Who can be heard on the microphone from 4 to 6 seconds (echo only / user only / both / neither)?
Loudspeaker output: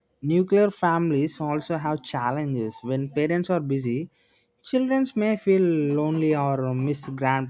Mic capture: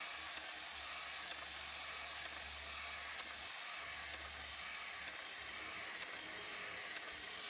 neither